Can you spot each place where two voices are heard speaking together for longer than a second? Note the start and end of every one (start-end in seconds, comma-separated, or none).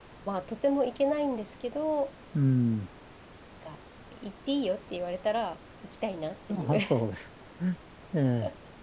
none